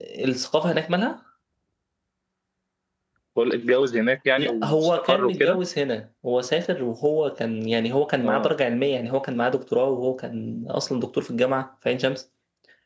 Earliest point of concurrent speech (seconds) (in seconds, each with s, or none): 4.4 s